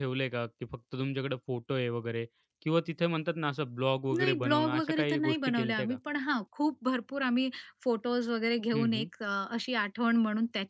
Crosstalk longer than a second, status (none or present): present